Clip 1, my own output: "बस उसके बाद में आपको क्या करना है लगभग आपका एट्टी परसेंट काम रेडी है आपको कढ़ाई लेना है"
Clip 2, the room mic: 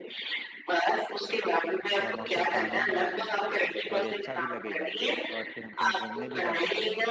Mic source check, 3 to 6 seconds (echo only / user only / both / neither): both